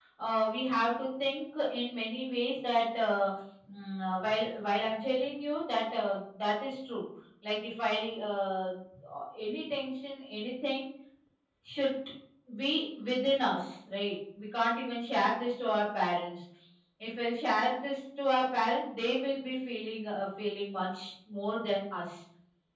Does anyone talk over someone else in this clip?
No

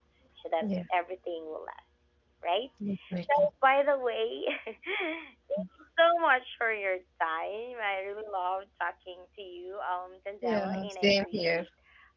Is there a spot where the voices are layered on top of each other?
Yes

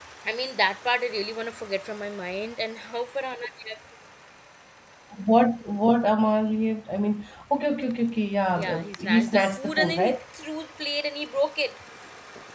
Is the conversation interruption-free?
No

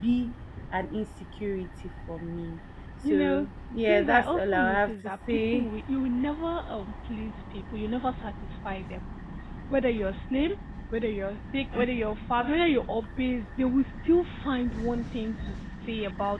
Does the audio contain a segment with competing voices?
Yes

